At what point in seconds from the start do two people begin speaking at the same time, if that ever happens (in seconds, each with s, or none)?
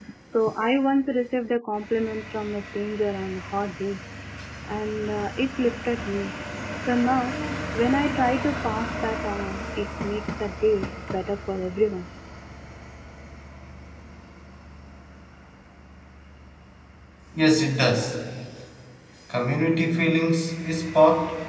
none